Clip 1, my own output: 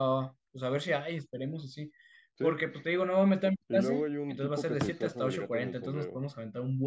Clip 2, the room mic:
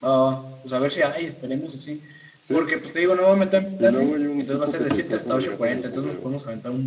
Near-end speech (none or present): none